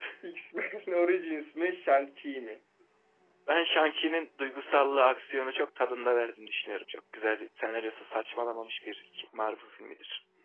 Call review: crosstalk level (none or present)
none